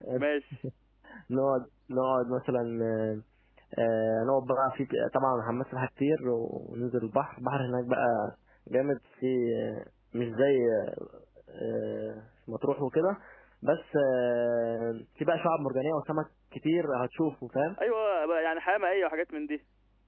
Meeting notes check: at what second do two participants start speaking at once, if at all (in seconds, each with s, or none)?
none